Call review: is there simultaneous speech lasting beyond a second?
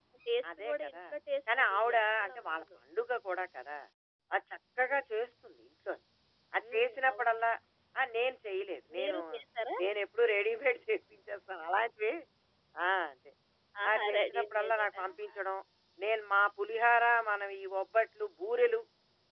Yes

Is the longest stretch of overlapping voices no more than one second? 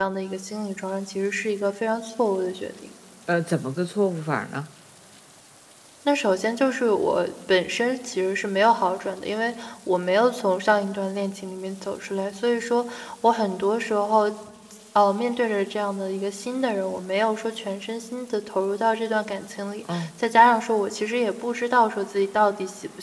Yes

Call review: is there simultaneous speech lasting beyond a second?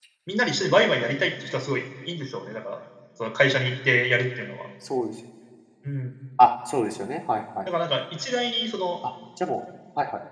No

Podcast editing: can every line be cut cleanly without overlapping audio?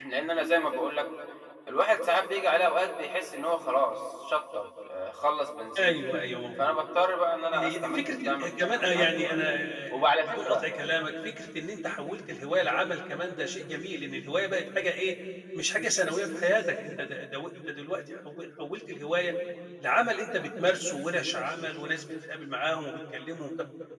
No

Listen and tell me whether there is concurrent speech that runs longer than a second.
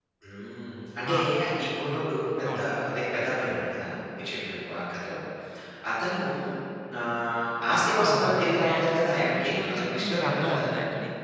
Yes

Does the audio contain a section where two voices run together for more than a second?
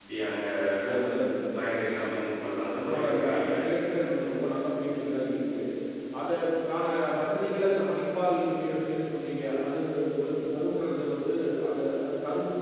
Yes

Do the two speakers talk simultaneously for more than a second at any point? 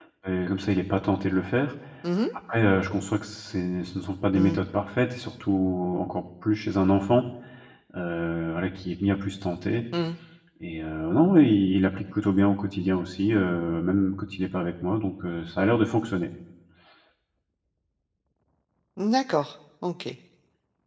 No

